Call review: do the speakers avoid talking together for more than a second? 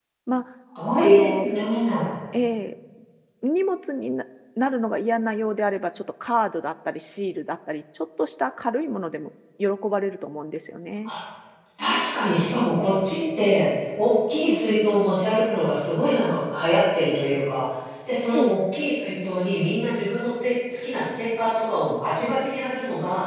Yes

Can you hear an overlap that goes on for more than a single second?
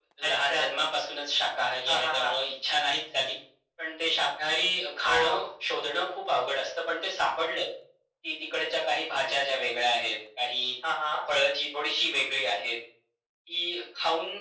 No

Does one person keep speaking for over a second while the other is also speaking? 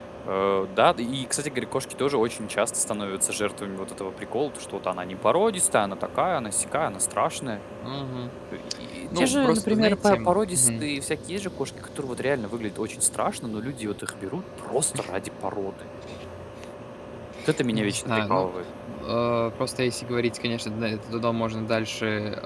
Yes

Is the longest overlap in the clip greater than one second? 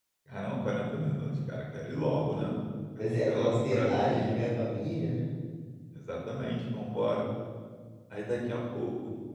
Yes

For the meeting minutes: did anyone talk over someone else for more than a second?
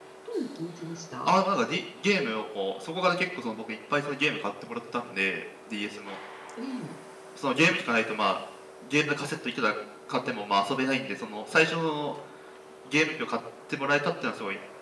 No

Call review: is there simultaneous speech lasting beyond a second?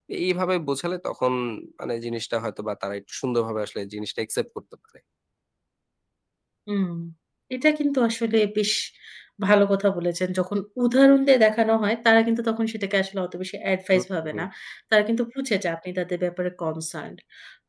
No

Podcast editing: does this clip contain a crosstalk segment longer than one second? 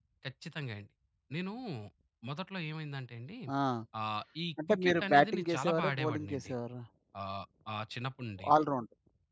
Yes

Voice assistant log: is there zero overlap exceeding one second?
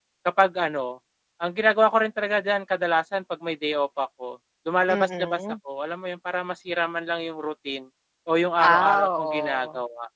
No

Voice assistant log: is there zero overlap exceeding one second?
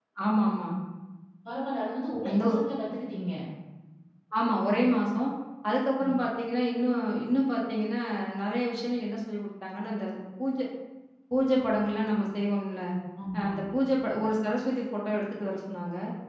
Yes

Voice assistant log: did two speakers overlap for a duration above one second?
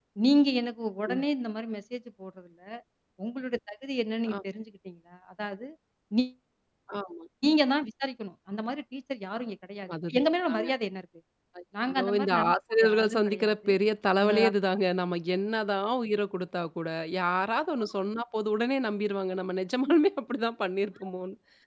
Yes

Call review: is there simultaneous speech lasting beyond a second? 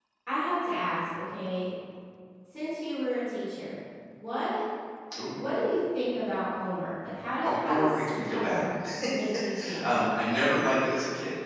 Yes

